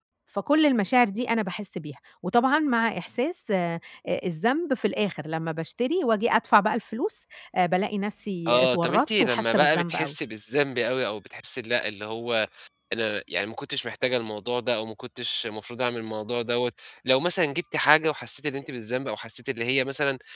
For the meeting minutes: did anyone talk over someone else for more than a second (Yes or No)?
Yes